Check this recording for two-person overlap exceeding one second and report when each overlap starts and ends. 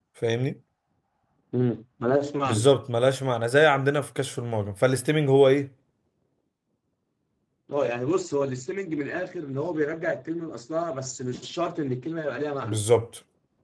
none

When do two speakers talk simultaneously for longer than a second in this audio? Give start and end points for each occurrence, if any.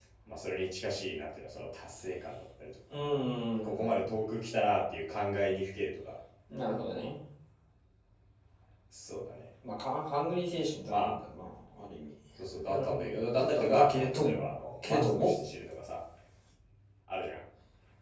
12.7-14.4

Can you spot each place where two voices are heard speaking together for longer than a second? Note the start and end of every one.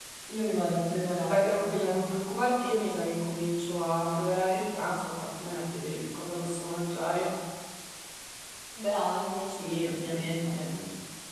9.5-10.8

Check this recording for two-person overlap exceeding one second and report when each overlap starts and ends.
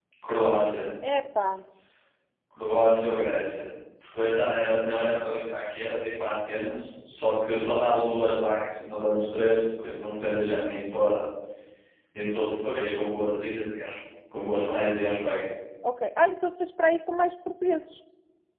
none

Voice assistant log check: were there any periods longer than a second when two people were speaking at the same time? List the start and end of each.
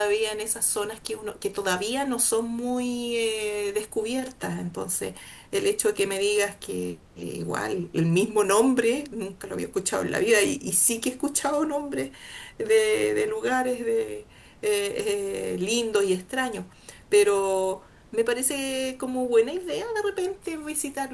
none

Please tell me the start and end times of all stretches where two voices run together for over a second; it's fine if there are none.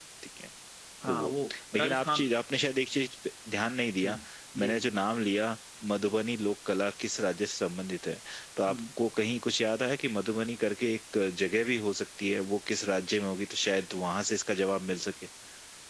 1.0-2.3

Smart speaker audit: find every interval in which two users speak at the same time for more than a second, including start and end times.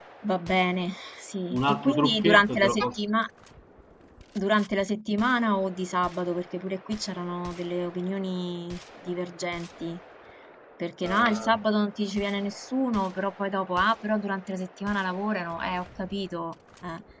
1.5-3.0

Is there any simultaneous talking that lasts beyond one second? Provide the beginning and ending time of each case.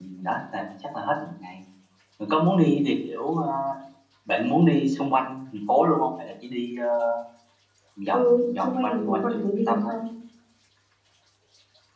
8.1-9.9

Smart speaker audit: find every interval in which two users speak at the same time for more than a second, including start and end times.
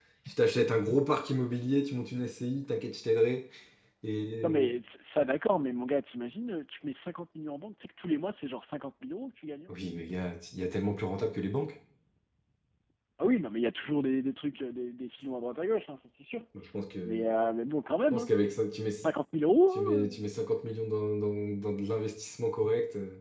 none

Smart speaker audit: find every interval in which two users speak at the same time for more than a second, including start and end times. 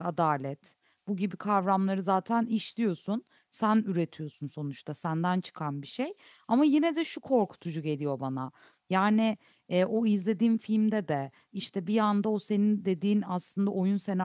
none

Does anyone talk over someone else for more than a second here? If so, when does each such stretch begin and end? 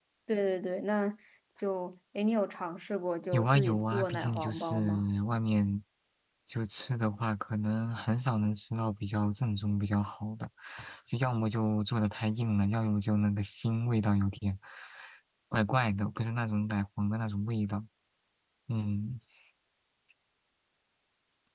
3.3-5.0

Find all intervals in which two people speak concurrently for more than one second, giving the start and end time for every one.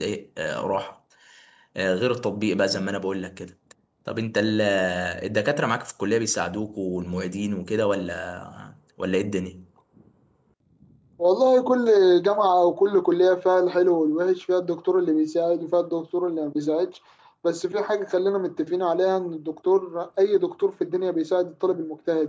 none

